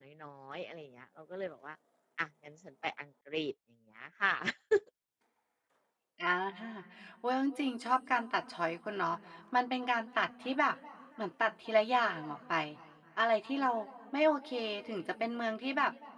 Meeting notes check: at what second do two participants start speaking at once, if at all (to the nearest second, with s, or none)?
none